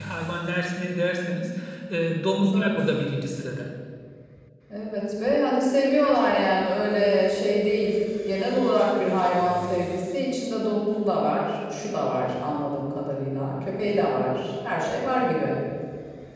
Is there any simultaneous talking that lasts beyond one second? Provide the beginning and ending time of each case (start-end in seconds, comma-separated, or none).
none